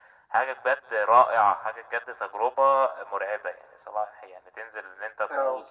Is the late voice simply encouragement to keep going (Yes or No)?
Yes